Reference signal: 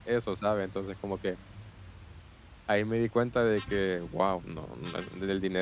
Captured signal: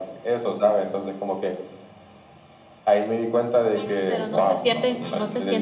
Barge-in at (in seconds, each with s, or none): 4.1 s